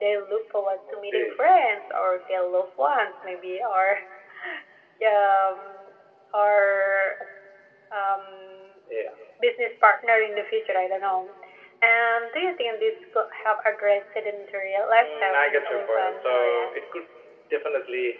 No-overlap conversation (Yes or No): No